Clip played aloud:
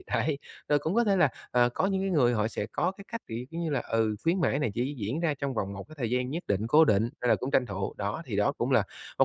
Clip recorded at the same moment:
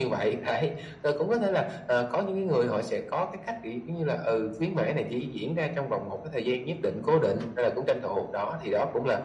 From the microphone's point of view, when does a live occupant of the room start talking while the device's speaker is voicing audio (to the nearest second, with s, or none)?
none